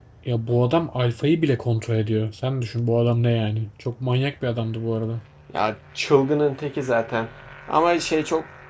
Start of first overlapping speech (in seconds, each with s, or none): none